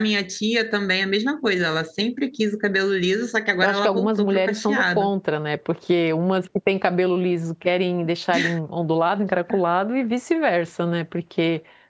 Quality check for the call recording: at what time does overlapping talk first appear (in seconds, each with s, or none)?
3.6 s